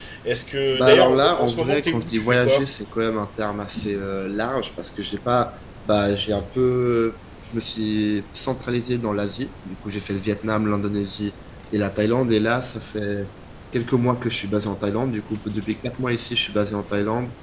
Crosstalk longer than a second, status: present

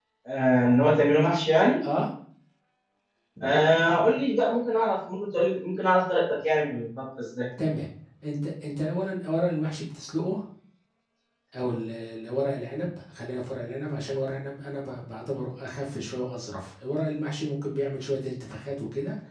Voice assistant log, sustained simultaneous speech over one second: none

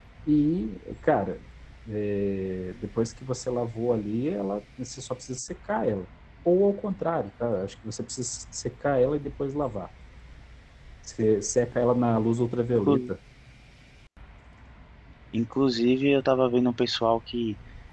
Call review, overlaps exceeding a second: none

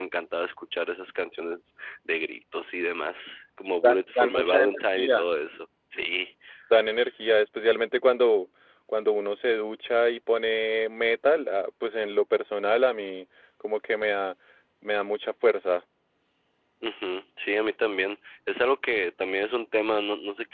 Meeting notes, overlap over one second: present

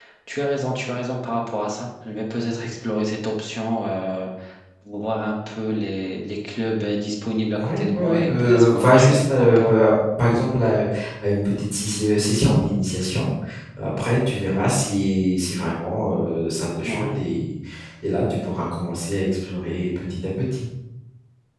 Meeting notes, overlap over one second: present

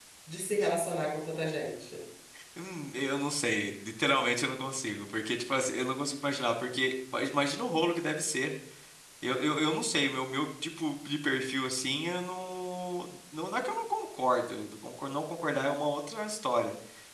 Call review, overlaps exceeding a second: none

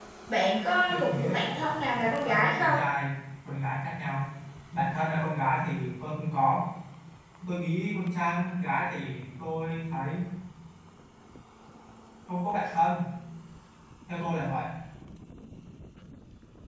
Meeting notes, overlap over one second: present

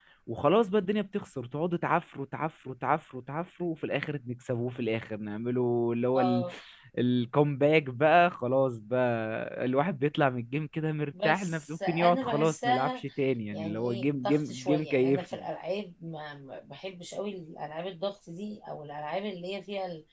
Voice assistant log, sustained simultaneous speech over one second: present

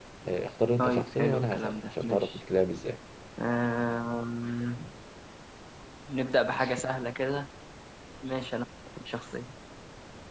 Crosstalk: present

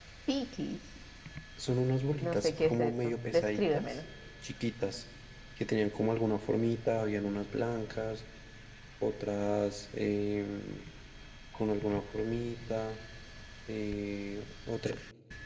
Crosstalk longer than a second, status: present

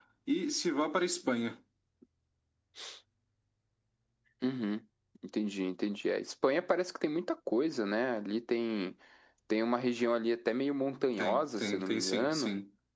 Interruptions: present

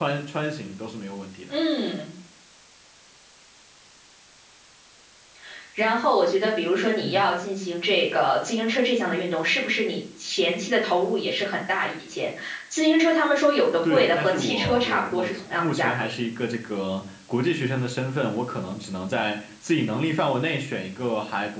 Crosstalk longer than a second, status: present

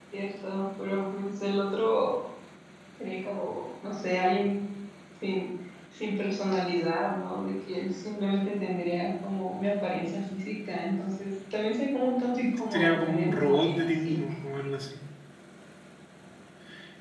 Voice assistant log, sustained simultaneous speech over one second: present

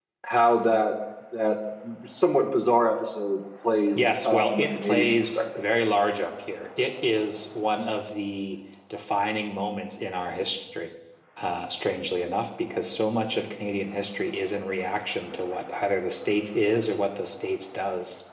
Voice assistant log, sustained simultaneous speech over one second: present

